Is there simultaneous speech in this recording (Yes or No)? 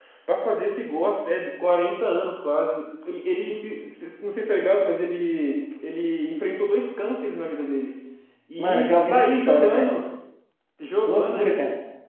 Yes